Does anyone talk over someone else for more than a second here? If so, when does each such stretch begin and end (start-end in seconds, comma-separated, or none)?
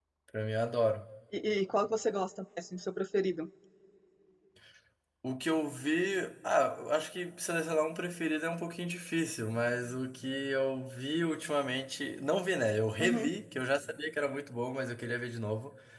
none